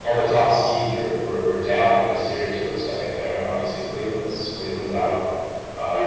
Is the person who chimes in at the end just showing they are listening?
Yes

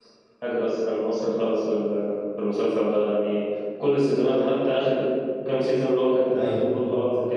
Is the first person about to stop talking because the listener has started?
No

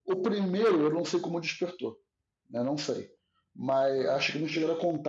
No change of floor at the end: Yes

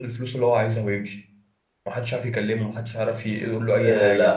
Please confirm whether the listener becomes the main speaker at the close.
Yes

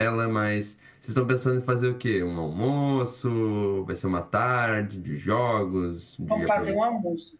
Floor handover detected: Yes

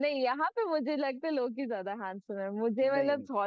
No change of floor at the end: Yes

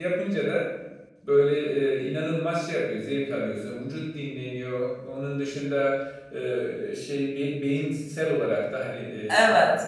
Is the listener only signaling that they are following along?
Yes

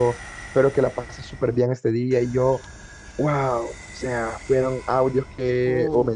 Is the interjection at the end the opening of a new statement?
No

